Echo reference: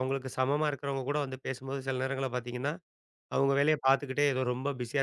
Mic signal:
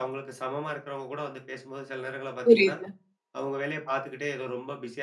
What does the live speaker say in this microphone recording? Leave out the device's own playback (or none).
புரியுது.